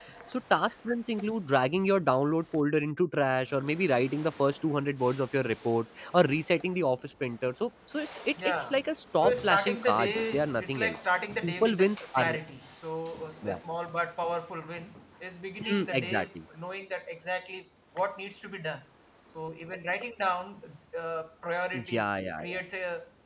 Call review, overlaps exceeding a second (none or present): present